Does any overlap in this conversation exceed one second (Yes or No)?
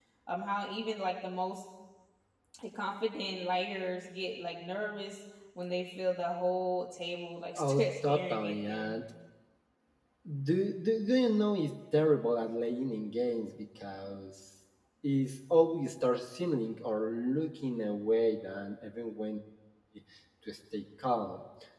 Yes